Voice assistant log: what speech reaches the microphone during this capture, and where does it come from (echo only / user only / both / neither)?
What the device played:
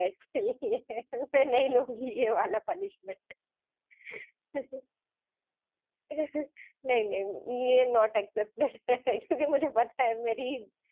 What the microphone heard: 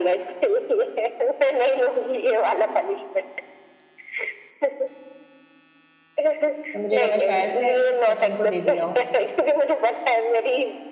both